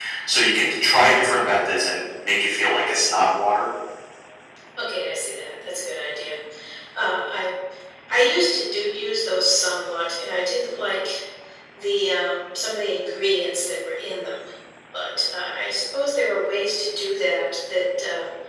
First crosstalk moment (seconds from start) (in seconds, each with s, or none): none